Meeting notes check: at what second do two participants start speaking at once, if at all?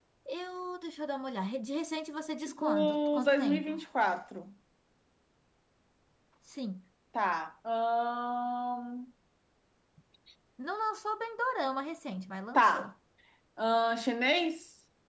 2 s

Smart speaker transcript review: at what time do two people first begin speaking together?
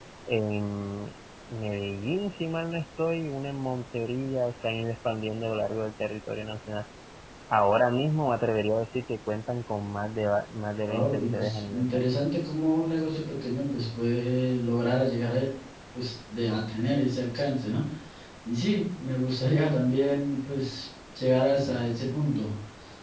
11 s

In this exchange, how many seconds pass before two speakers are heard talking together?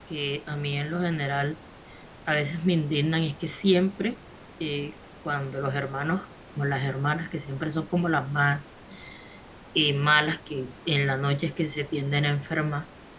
none

